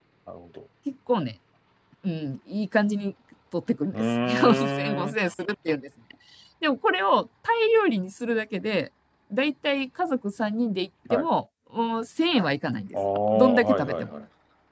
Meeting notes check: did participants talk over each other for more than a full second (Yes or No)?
Yes